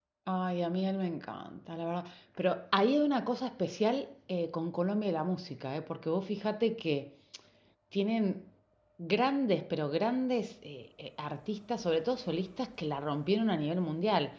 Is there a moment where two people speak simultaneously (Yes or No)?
No